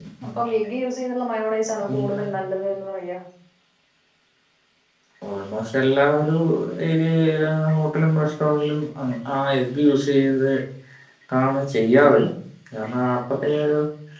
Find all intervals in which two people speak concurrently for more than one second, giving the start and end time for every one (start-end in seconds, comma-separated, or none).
none